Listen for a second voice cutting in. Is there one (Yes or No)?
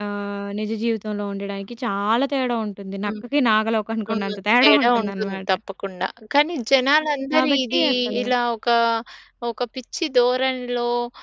Yes